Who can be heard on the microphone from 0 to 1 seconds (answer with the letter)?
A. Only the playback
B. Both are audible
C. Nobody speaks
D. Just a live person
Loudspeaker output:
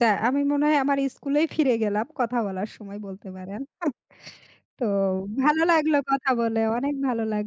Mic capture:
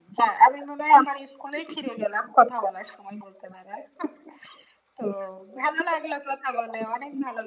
A